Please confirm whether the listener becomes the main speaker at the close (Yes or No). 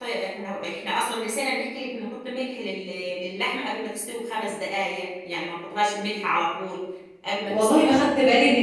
Yes